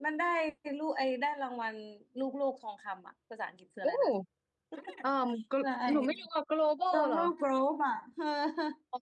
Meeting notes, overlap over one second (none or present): none